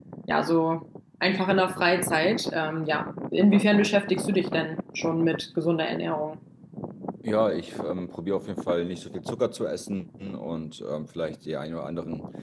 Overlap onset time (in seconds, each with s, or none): none